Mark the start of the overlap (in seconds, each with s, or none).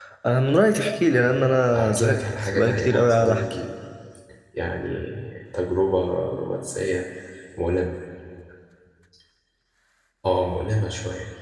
1.7 s